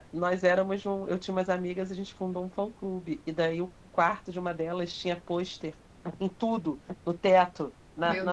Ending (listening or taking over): listening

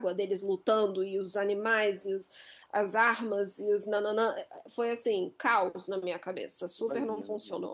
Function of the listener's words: taking over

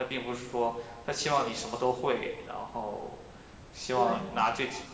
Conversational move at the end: listening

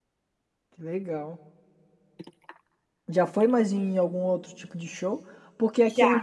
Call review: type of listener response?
listening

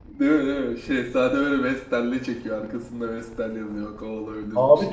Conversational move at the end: taking over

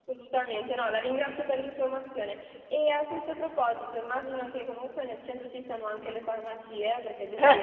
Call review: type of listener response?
listening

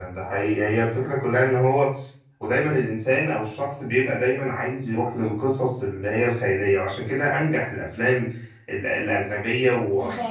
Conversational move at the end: listening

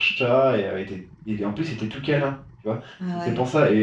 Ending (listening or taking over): listening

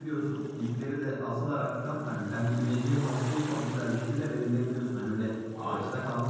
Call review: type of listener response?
listening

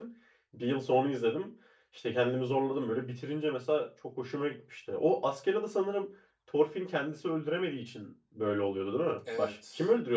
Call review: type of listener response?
taking over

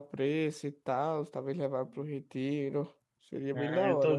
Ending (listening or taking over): taking over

